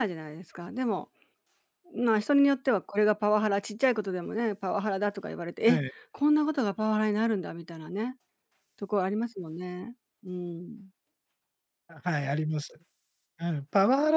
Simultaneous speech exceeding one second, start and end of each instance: none

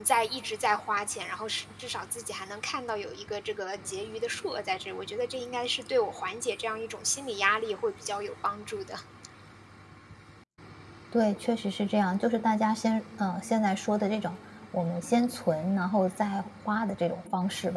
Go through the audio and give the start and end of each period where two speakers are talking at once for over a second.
none

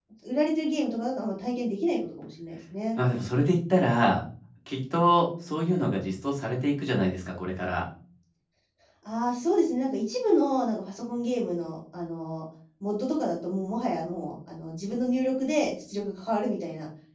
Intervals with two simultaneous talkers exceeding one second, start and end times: none

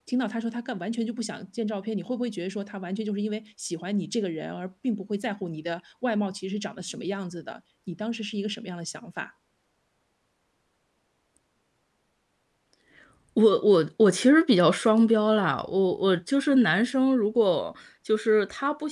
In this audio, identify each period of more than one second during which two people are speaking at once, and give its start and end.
none

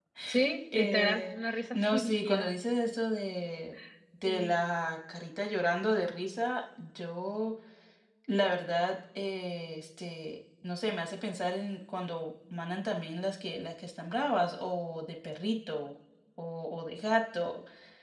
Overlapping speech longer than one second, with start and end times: 0.7-2.5

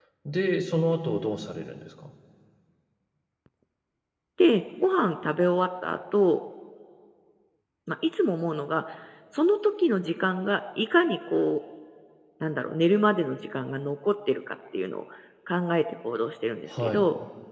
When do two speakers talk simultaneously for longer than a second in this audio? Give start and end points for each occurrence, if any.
none

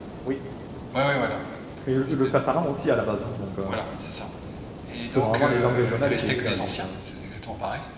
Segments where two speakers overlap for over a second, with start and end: 5.0-6.9

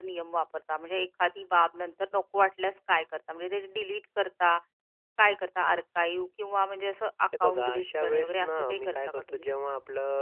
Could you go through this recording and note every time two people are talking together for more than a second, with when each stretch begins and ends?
7.4-9.5

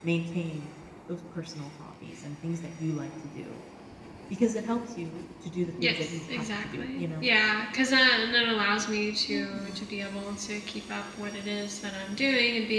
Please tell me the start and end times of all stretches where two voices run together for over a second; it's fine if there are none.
5.8-7.3

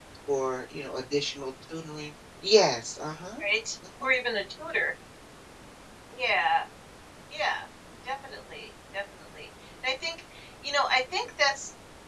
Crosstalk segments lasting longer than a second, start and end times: none

